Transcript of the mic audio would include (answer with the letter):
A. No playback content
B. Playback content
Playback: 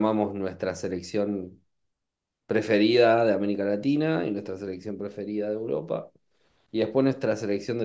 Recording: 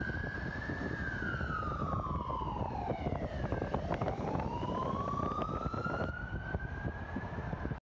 A